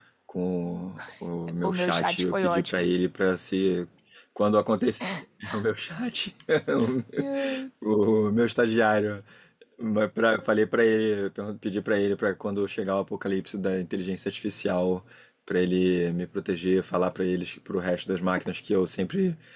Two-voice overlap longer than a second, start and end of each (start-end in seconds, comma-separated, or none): 1.6-2.8